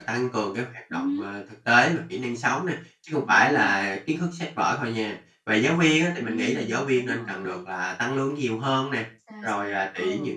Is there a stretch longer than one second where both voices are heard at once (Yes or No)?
Yes